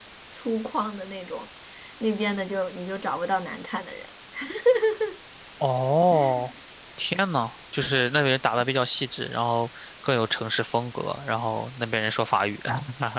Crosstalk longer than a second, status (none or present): none